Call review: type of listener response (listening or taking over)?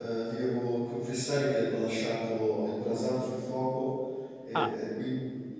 listening